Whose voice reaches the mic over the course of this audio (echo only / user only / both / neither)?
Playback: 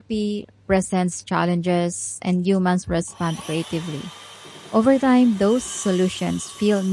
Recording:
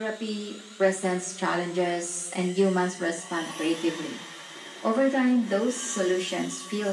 echo only